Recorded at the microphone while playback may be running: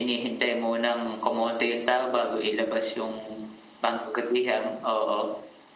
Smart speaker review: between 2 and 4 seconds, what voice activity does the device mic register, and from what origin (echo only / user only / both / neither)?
echo only